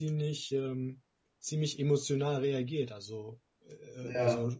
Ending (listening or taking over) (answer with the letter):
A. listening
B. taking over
A